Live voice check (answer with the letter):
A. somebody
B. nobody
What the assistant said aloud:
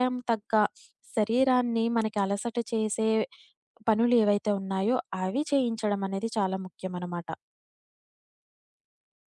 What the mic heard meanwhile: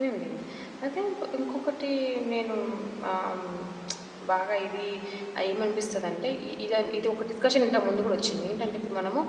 A